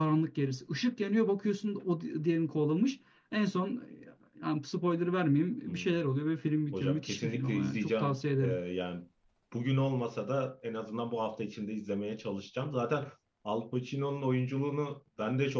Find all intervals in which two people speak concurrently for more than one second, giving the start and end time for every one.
6.7-8.6

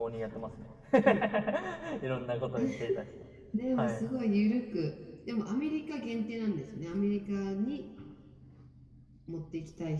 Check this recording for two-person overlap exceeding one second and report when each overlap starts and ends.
none

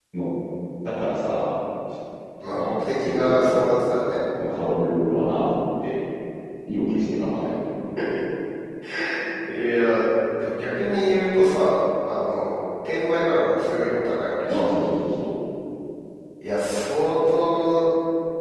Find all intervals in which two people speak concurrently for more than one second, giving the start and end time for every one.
2.4-3.7

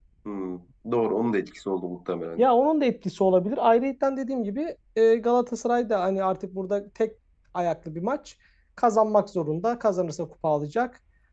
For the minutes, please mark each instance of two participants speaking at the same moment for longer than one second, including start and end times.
none

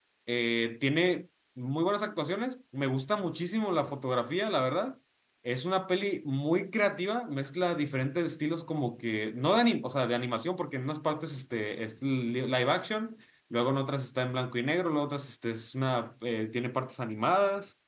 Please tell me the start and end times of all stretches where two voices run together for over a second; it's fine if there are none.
none

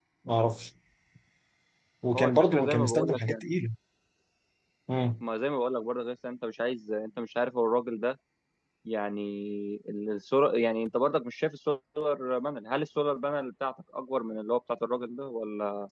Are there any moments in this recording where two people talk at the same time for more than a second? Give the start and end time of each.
2.2-3.4

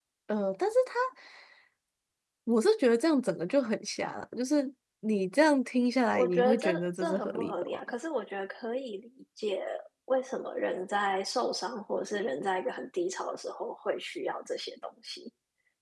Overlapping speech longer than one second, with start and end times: 6.1-7.8

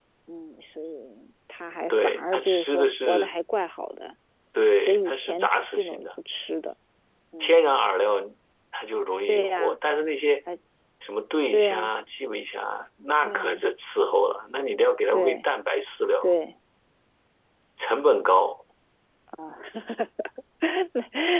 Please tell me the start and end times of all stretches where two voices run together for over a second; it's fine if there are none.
1.9-3.3, 4.8-6.1

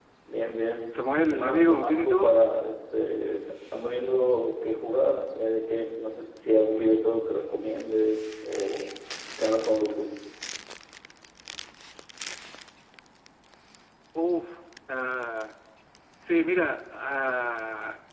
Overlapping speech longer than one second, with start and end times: 0.9-2.4

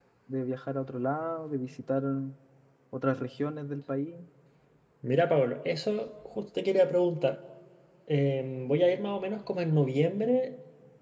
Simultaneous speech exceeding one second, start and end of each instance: none

